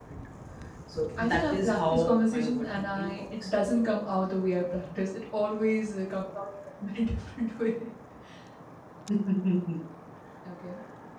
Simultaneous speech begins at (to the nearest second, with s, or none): 1 s